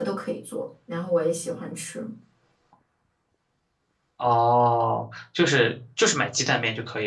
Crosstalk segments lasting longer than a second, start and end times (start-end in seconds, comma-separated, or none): none